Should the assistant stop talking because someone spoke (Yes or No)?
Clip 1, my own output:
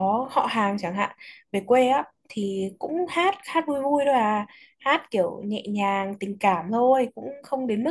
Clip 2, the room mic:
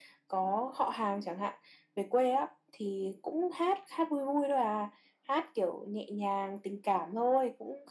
No